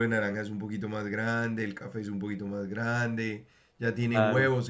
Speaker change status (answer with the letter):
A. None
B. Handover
A